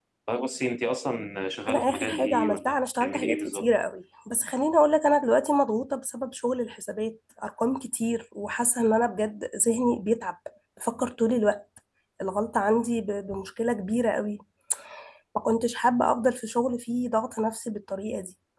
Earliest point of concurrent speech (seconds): 1.7 s

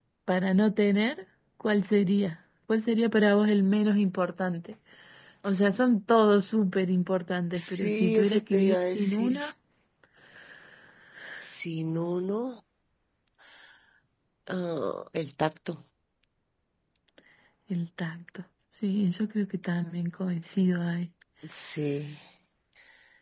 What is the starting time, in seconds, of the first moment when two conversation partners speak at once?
7.5 s

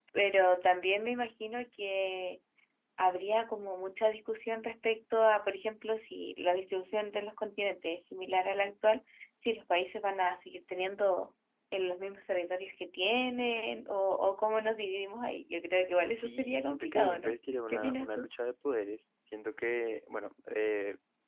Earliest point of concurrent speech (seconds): 16.1 s

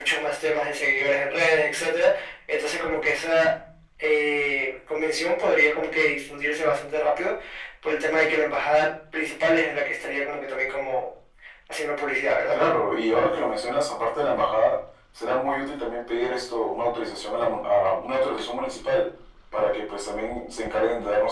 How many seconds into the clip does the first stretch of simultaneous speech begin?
none

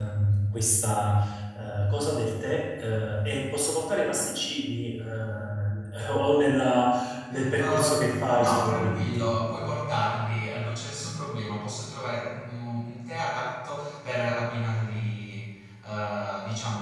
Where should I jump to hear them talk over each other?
7.3 s

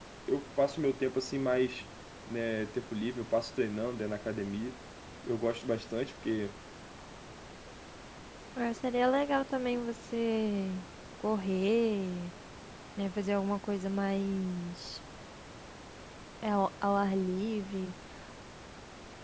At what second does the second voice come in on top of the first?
none

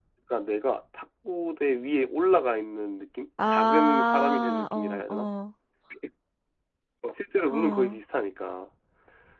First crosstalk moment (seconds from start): 3.5 s

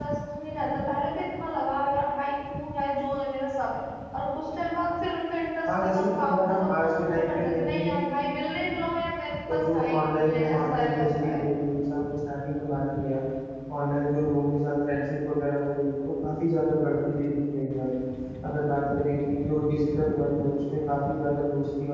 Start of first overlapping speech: 5.8 s

